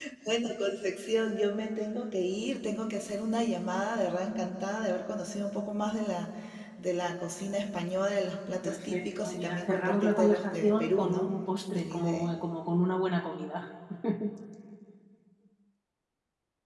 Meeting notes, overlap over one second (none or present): present